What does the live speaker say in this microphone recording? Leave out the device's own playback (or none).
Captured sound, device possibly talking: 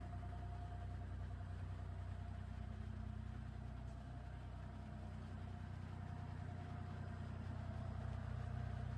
none